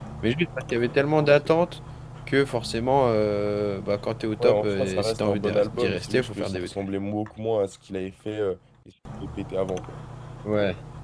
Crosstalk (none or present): present